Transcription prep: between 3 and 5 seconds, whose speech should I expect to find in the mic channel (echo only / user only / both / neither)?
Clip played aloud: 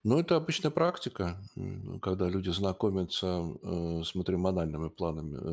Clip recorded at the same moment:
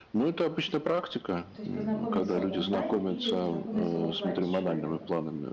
both